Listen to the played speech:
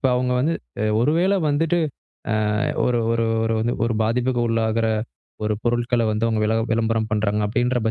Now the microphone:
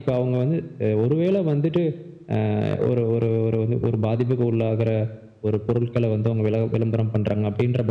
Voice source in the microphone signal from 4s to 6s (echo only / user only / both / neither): echo only